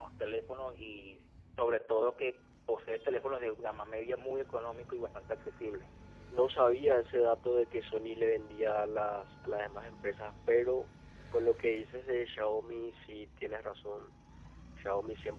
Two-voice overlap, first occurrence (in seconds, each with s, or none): none